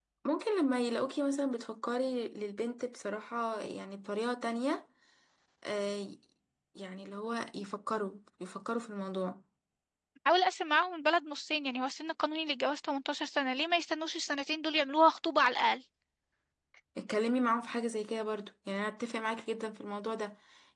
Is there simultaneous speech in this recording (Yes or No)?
No